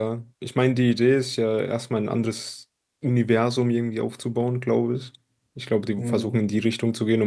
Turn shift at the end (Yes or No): No